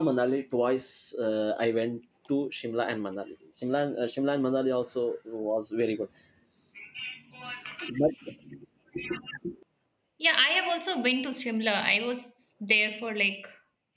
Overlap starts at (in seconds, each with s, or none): none